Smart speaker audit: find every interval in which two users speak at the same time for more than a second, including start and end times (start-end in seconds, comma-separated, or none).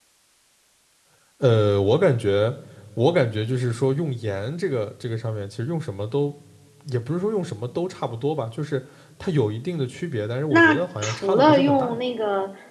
10.5-12.0